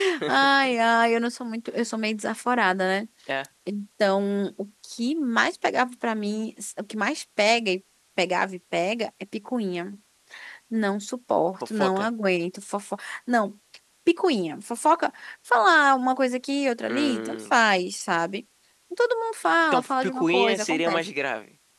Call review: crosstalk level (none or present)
present